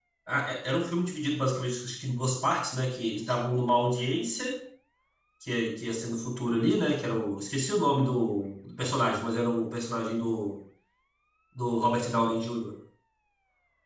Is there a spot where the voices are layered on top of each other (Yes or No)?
No